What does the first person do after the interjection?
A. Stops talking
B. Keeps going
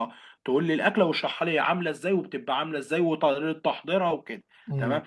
B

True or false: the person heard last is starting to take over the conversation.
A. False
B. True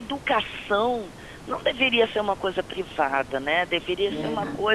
A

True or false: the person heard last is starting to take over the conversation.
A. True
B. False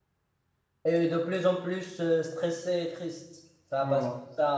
B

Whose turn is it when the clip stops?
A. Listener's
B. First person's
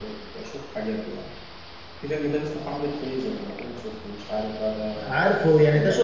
A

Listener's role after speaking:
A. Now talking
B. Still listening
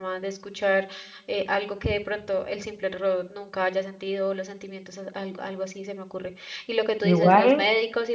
B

